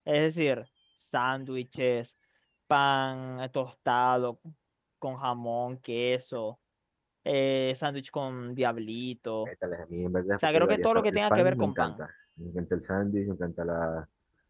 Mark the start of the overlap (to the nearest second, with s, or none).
10 s